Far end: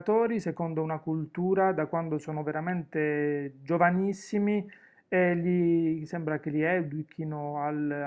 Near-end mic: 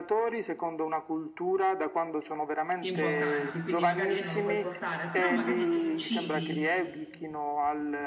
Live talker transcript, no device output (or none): importanti, quindi magari lì non lo puoi portare, però magari i principi,